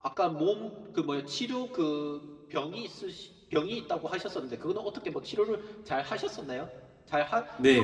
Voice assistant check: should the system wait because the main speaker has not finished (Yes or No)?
No